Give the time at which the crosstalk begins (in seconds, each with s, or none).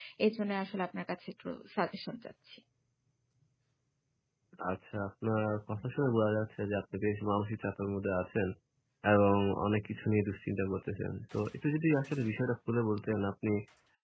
none